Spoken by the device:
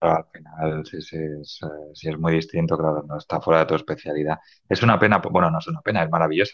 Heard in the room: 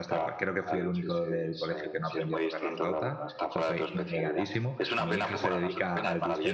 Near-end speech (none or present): present